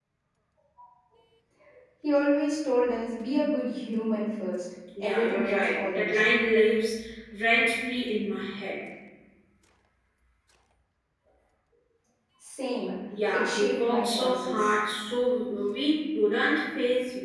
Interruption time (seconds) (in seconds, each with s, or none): 5.0 s